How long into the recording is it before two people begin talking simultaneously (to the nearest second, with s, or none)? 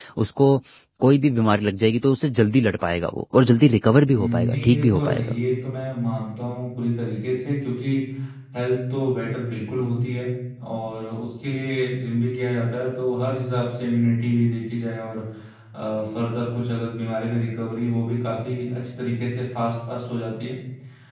4 s